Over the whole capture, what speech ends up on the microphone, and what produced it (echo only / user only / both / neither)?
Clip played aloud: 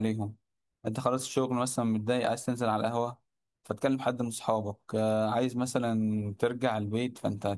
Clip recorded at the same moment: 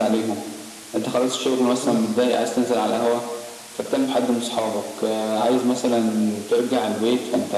both